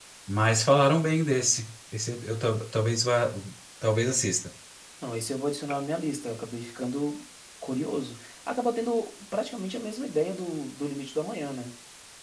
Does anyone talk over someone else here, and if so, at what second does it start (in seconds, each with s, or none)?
none